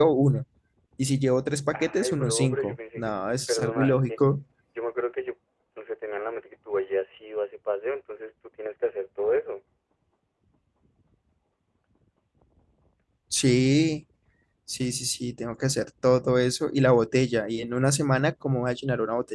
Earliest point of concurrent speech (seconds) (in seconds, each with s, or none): 1.7 s